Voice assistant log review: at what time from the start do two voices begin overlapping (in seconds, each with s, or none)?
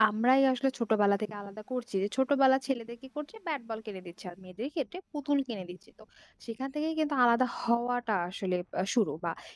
none